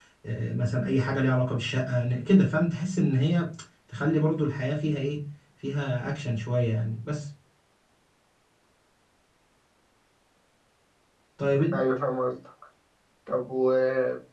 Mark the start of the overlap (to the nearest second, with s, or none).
none